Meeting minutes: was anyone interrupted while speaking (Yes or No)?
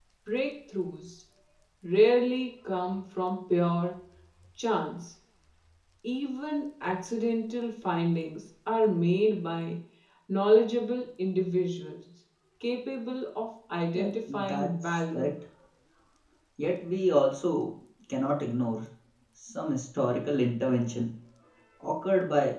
Yes